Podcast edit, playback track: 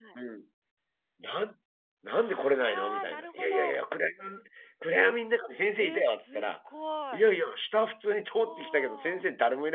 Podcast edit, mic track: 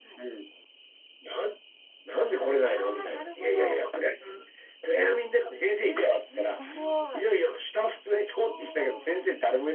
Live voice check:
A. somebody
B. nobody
A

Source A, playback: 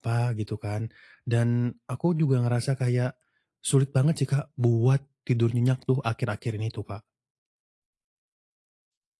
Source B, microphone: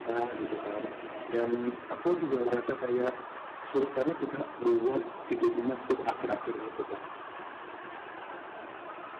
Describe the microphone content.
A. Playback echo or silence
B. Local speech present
A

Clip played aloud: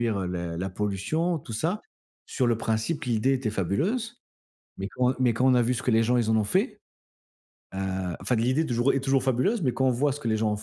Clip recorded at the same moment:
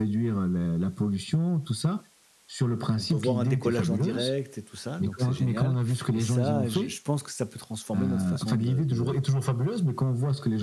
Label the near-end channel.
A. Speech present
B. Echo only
A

